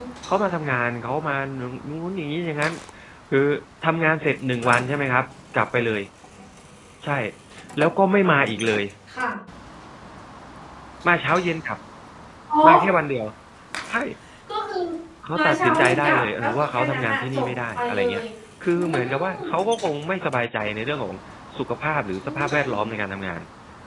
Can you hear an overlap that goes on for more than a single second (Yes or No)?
Yes